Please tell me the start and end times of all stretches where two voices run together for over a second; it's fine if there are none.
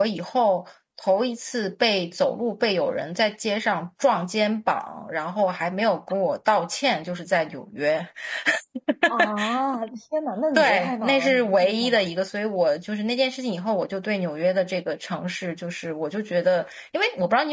10.6-12.1

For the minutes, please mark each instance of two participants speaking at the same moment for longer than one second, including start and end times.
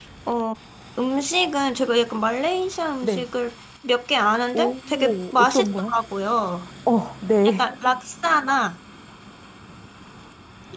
4.5-5.9

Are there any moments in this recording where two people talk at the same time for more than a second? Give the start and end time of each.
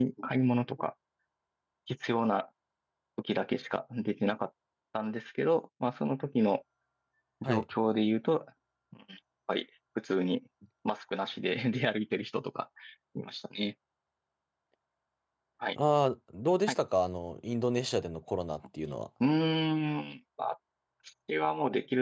none

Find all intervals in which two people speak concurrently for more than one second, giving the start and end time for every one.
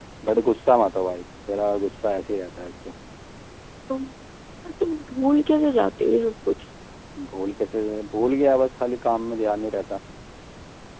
none

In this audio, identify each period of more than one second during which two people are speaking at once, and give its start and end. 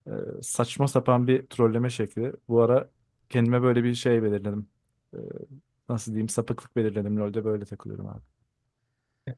none

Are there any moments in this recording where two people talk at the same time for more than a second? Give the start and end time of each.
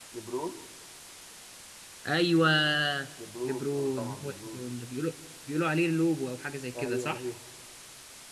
3.4-4.6

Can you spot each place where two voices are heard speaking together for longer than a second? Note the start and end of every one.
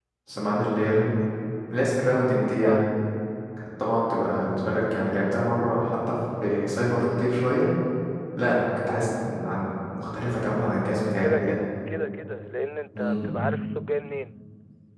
none

